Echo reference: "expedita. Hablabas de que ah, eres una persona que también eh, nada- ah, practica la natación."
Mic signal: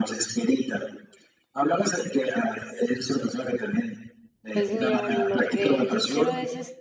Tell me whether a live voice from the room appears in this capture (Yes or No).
Yes